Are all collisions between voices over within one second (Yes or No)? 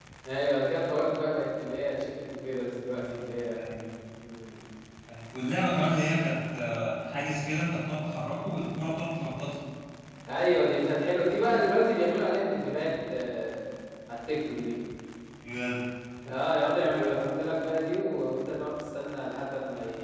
Yes